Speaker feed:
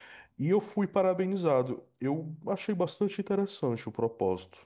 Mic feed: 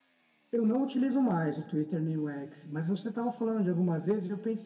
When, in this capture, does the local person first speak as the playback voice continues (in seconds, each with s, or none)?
0.5 s